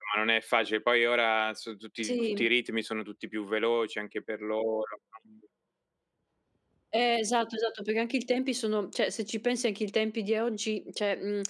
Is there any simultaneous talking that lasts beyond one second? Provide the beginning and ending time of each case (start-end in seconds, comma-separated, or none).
none